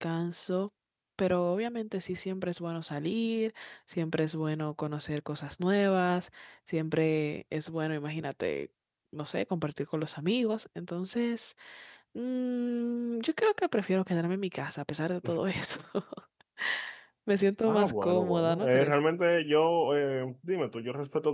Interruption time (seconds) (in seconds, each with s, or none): 17.6 s